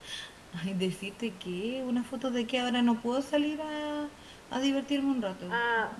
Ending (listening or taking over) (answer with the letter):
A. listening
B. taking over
B